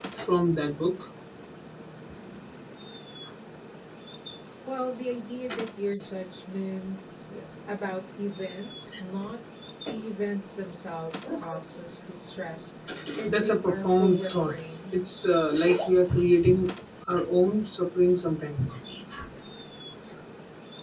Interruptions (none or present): present